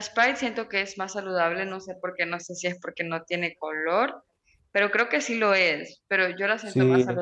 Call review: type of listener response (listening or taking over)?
listening